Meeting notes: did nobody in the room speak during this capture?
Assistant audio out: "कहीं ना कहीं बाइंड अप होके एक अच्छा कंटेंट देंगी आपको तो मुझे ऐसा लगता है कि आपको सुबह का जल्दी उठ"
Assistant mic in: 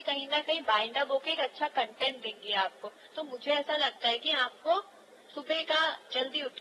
Yes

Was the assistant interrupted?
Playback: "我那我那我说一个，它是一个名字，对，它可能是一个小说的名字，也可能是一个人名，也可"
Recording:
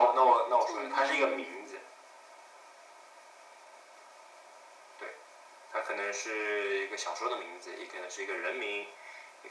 Yes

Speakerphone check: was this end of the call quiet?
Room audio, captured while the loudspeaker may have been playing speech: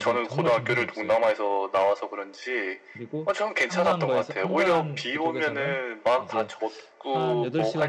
No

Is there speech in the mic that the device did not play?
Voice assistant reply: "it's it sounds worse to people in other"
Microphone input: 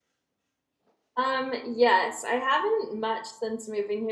Yes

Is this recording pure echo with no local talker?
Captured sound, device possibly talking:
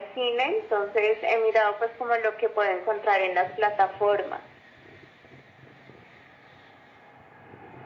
Yes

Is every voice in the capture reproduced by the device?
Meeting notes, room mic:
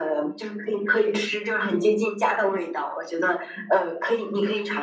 Yes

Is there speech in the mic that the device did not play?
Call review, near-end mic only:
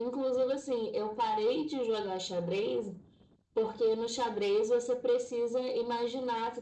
No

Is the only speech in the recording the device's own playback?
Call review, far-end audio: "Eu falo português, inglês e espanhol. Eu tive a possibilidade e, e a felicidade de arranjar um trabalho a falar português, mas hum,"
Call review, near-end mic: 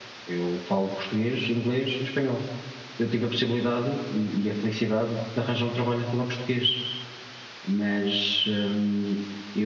Yes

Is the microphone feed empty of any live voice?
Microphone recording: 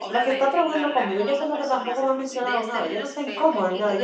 No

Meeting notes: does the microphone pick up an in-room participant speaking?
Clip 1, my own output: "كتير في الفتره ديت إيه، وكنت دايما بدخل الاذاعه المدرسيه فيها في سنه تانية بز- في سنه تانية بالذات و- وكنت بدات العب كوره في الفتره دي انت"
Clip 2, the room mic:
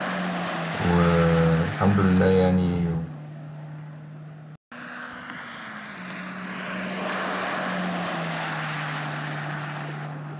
Yes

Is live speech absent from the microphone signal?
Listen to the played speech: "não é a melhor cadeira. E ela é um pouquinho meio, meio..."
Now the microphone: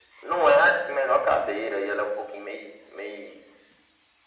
Yes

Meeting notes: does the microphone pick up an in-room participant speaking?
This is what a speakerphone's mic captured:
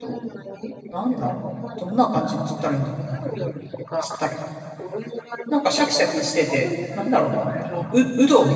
Yes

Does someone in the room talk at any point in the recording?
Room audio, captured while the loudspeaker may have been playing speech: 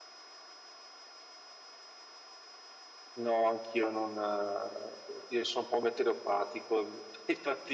No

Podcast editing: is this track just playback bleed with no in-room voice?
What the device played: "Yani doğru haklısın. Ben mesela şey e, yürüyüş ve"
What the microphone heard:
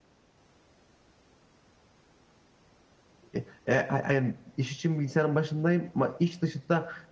No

